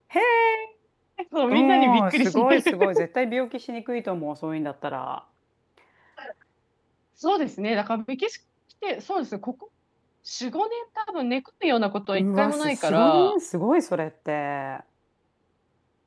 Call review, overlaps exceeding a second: present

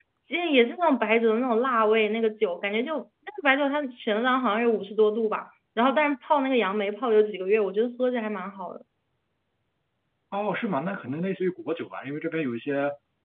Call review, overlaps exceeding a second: none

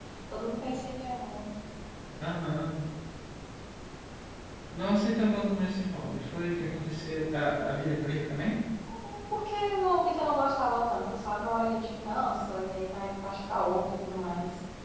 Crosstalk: none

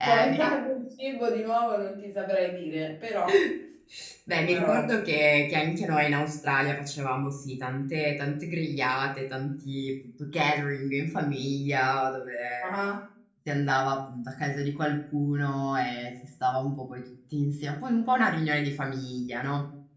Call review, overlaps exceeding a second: none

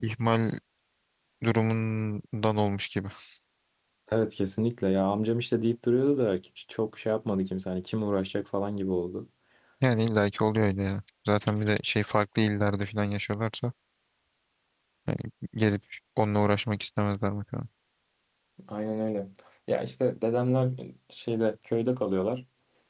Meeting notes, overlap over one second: none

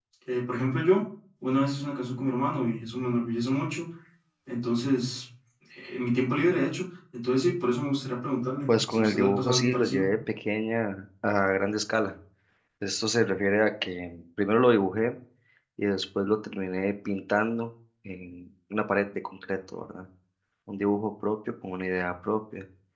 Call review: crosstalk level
present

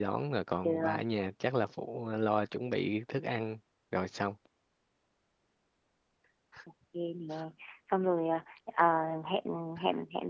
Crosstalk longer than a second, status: none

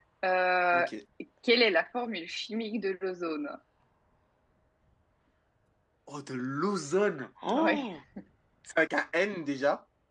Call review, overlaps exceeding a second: none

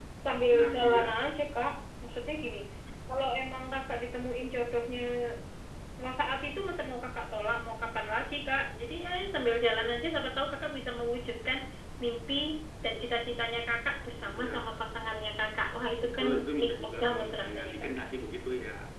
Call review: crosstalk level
present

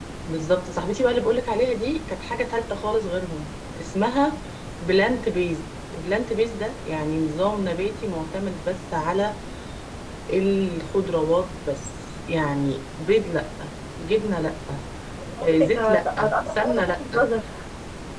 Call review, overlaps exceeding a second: present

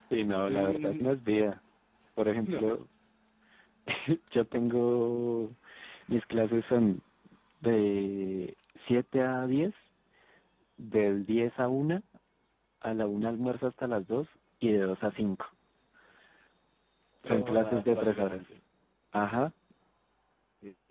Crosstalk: present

